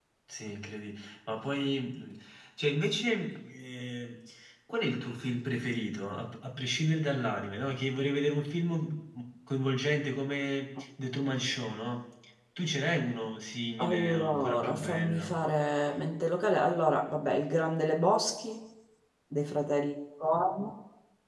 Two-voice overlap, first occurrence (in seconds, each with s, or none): 13.8 s